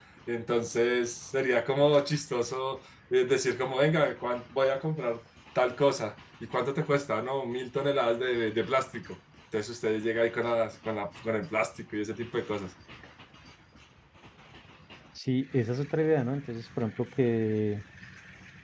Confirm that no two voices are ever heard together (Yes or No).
Yes